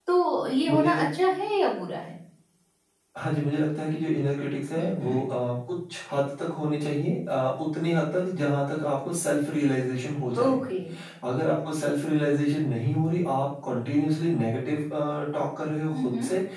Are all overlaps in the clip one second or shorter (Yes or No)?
Yes